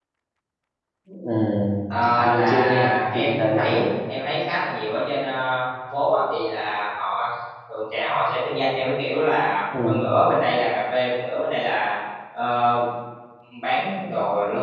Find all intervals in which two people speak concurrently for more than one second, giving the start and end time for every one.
2.1-3.8

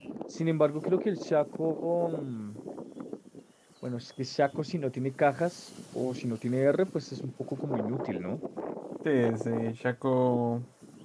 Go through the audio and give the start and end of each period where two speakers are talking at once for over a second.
none

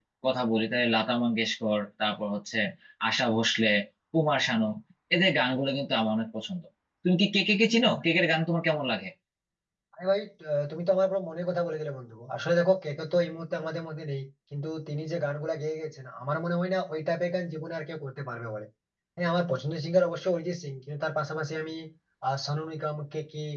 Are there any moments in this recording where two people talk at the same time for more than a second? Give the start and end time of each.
none

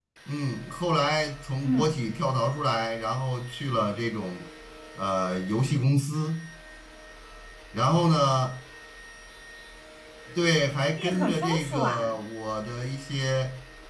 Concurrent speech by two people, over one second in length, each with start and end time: 10.9-12.2

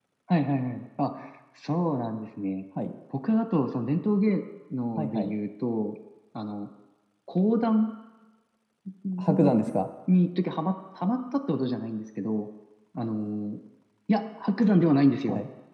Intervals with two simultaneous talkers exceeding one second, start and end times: none

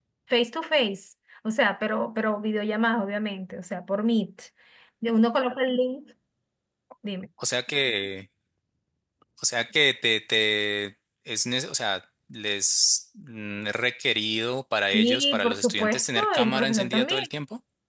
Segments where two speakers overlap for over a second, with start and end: 14.9-17.2

